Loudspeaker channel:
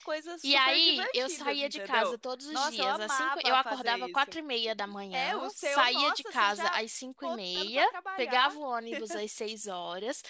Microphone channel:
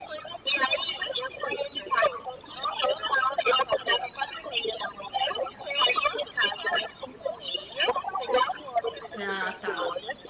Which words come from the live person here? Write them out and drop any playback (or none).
Ah, tá.